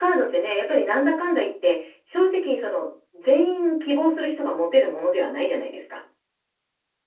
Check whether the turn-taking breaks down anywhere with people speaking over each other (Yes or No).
No